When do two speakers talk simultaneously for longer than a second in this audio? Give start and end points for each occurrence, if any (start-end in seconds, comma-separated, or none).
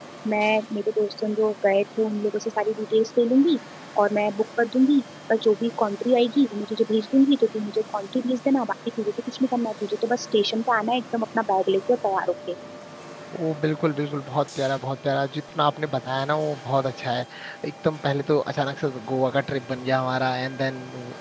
none